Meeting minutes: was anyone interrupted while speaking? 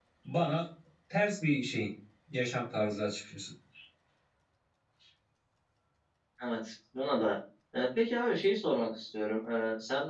No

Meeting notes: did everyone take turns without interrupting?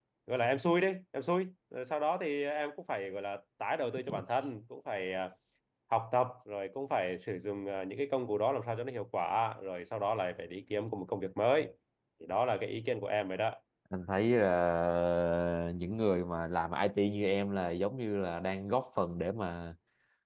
Yes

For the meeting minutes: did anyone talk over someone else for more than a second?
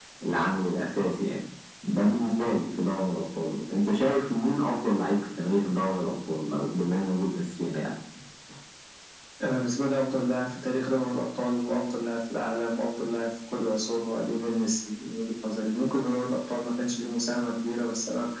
No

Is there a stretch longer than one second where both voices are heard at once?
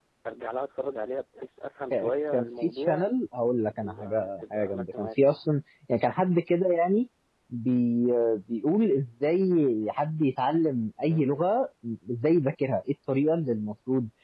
Yes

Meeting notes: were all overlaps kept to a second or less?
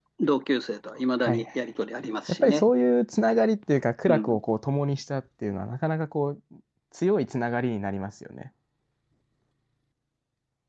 Yes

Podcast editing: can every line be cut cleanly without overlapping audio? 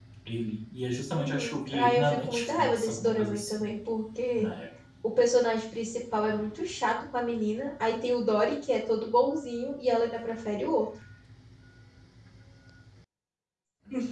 No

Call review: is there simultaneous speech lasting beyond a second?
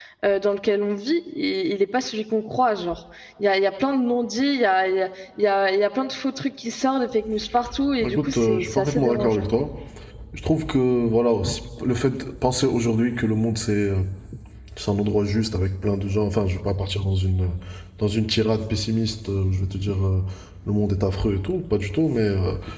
Yes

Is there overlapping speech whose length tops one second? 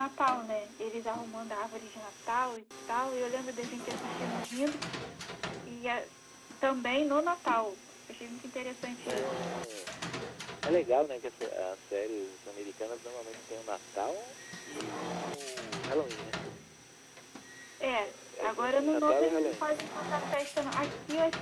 Yes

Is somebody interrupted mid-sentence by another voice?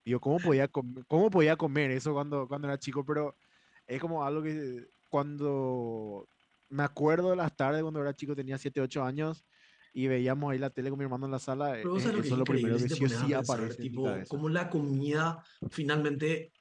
Yes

